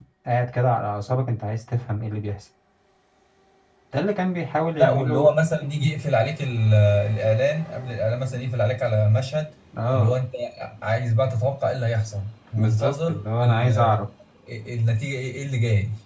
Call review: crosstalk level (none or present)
present